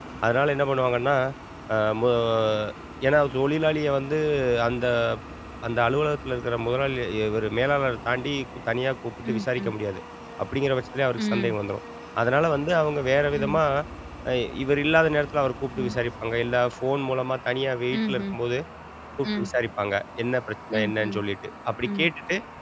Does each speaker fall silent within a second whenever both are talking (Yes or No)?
Yes